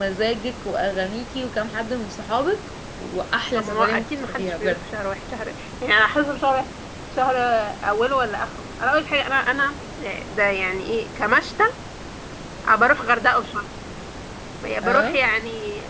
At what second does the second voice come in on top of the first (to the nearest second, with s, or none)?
4 s